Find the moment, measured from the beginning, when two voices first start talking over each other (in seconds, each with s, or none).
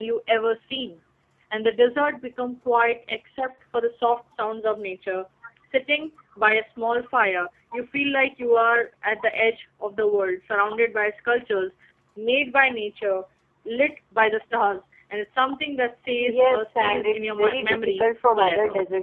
16.2 s